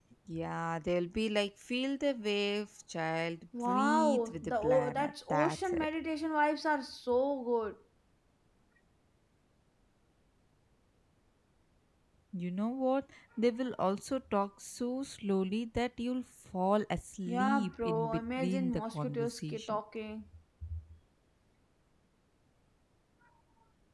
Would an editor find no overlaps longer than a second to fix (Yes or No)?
No